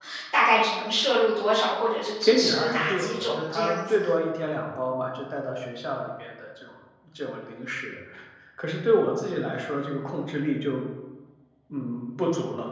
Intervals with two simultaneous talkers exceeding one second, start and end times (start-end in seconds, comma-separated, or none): 2.2-4.0